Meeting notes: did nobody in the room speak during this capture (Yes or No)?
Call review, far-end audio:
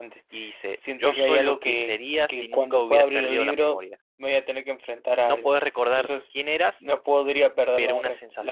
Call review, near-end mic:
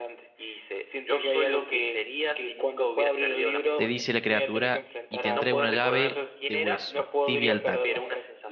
No